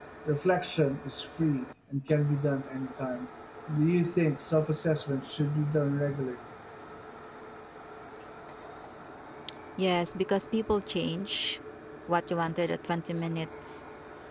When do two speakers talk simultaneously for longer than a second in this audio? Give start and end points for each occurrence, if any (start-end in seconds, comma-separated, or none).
none